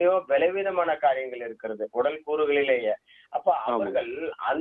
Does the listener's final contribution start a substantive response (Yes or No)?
No